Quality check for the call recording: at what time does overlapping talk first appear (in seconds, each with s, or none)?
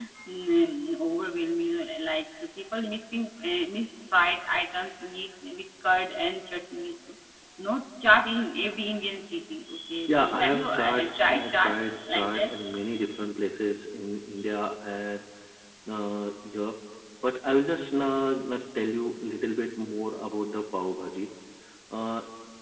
10.1 s